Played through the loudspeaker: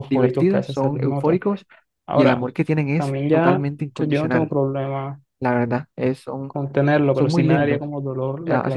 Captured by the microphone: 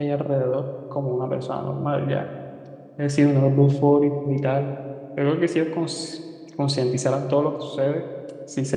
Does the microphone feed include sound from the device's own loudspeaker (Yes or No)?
No